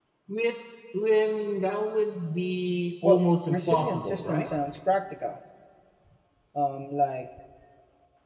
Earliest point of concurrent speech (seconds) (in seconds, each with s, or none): 3.0 s